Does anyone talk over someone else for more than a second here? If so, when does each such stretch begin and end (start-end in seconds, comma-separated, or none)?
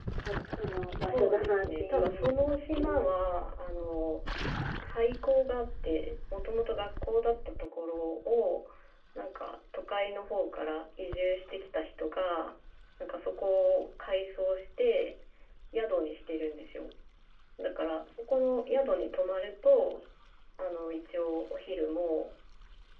1.1-3.1